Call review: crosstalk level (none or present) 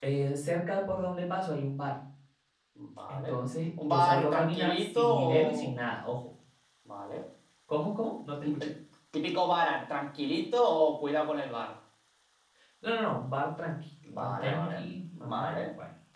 present